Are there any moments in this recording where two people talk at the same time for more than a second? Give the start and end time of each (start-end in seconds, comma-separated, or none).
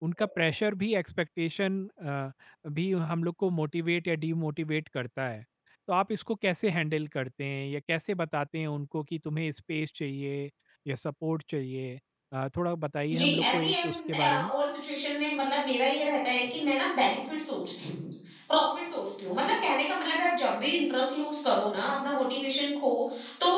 13.1-14.5